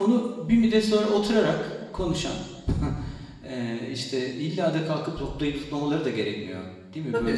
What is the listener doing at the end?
taking over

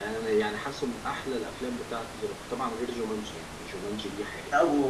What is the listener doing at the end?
taking over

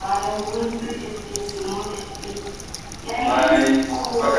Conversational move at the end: taking over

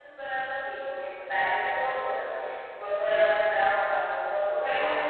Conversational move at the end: listening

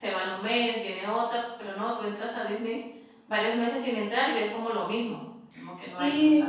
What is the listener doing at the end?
taking over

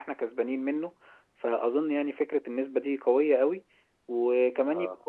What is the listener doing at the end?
listening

